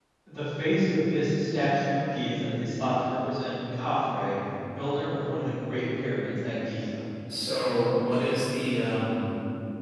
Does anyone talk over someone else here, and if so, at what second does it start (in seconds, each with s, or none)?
none